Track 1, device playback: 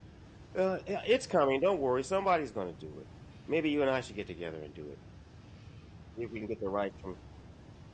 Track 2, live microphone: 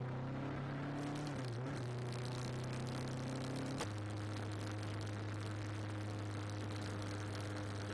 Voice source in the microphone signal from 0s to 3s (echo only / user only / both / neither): neither